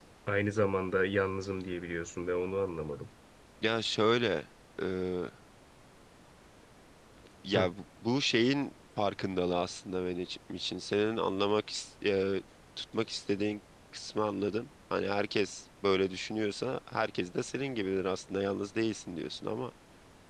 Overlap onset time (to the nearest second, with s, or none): none